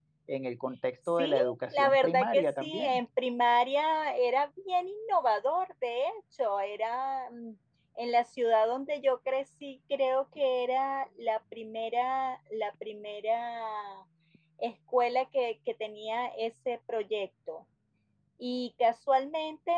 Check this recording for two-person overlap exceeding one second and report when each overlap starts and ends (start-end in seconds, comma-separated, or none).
1.1-3.0